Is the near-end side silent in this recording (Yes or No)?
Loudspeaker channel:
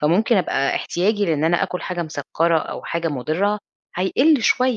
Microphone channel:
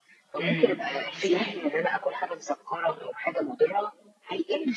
No